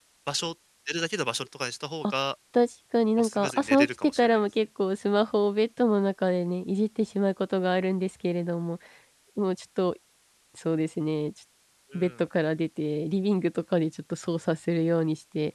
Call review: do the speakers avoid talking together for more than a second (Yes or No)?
No